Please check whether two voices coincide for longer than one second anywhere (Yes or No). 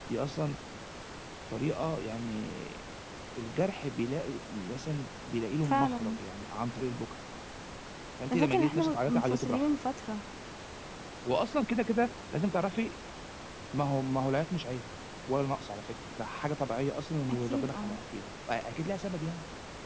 Yes